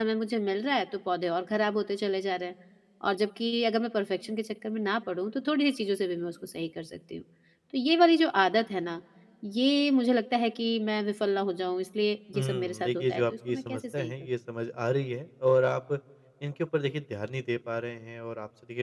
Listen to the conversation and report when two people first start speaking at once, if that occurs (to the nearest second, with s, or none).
12 s